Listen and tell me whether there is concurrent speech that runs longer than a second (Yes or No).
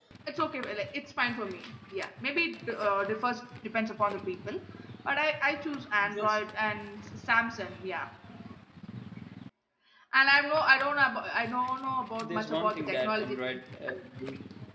Yes